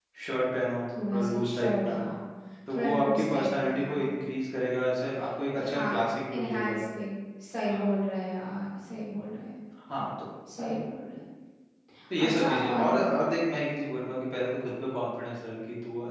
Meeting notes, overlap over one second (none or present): present